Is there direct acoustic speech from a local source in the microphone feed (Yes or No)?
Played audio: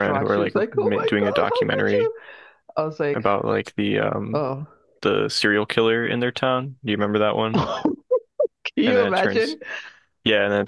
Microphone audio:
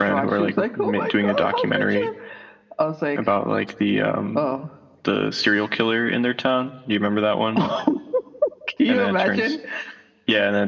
No